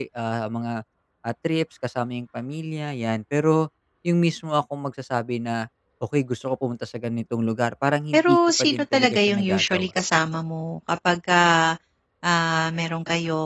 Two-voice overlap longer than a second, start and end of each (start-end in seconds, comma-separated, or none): 8.1-9.9